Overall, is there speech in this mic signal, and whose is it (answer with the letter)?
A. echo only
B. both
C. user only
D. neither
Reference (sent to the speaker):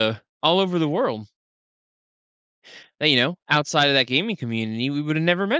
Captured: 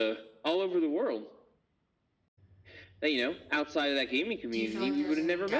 B